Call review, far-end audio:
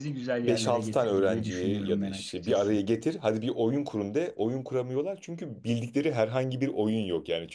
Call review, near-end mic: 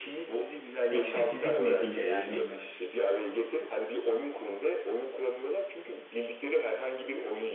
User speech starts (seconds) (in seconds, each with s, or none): 0.9 s